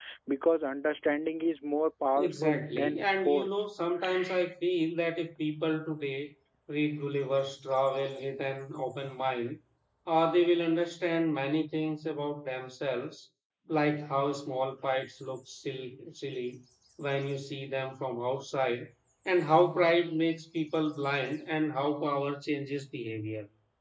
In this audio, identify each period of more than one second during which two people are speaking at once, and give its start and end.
2.2-3.6

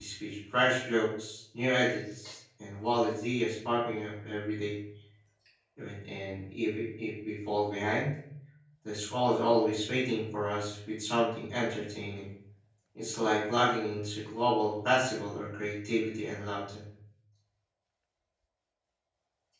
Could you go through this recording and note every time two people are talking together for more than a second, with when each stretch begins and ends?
none

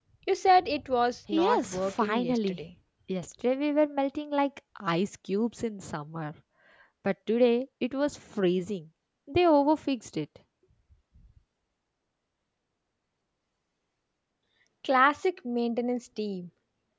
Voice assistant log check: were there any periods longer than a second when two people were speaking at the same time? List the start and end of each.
1.3-2.6

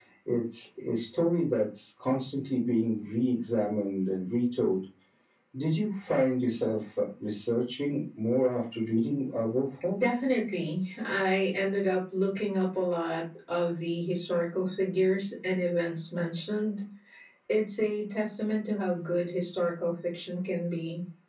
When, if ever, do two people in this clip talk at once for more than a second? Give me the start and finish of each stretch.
none

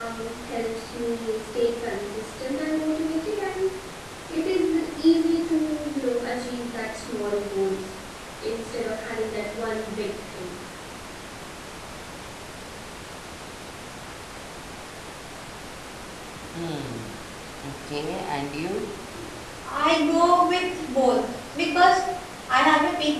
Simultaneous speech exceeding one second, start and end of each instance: none

